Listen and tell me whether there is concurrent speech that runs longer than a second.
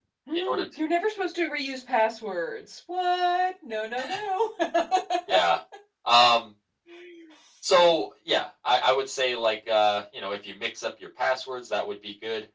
No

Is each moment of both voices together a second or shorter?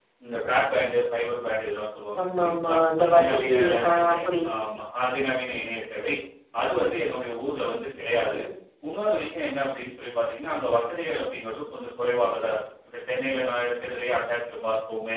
No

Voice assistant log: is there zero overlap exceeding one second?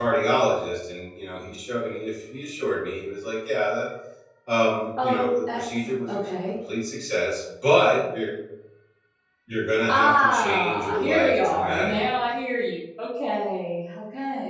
No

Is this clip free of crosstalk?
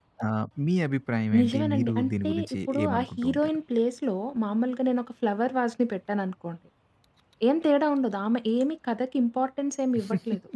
No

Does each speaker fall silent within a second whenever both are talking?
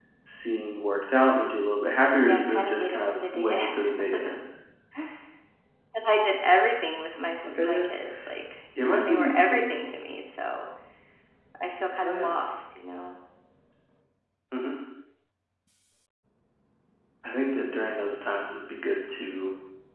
No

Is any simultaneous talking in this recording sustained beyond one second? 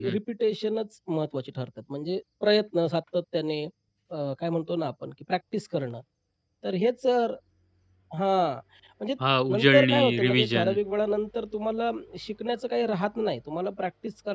Yes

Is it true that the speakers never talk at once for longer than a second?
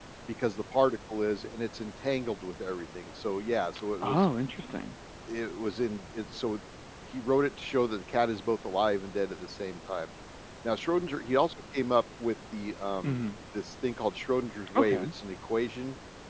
Yes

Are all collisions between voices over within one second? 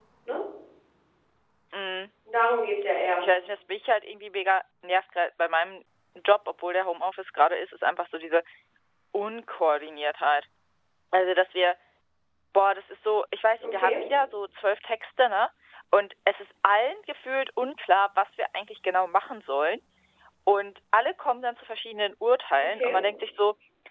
Yes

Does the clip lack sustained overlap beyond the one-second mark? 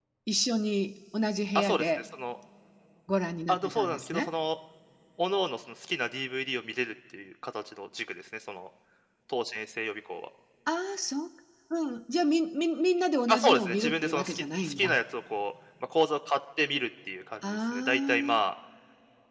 No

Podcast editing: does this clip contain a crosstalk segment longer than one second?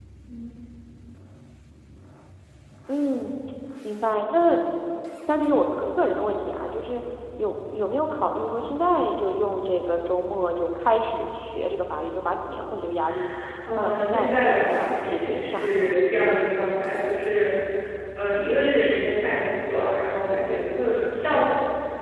Yes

